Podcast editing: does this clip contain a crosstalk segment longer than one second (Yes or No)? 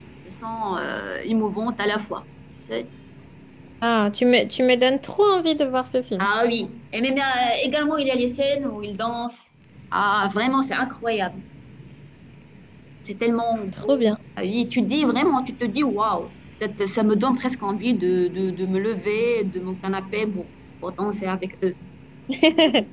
No